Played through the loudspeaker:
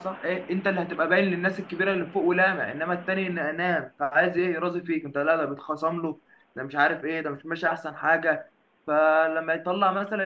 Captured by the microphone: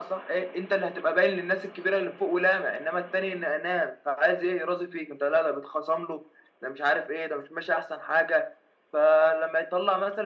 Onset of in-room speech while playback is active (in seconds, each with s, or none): none